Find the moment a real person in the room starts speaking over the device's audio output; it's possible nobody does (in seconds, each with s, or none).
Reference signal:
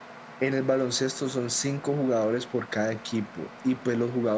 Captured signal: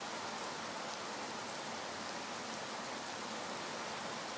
none